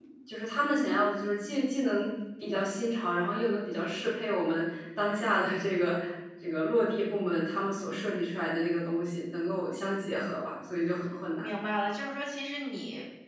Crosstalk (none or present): none